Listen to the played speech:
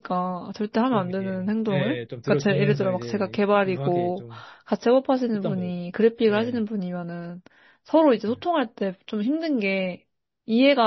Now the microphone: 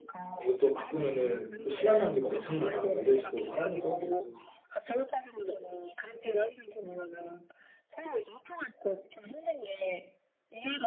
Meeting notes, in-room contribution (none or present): present